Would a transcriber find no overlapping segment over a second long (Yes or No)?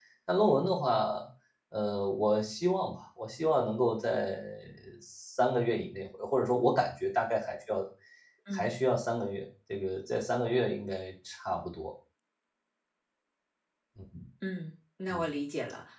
Yes